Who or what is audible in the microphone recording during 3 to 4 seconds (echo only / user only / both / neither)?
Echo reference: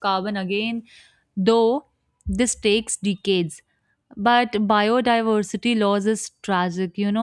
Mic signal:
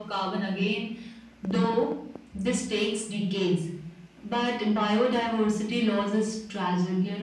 echo only